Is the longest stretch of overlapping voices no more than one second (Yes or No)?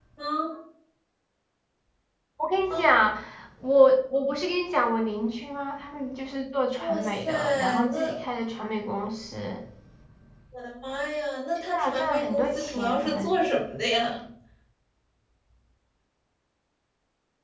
No